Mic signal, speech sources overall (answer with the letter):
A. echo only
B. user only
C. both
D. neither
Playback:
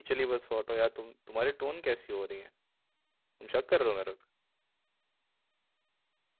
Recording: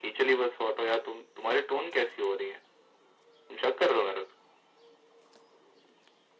A